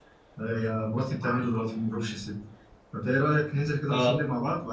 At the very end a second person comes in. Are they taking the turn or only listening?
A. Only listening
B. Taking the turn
A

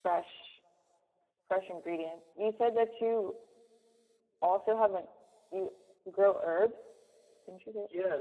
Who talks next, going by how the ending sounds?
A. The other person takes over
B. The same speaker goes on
A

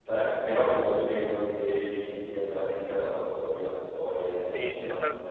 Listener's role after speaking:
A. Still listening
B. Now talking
B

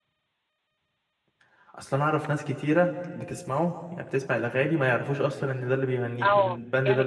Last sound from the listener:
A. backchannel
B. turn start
B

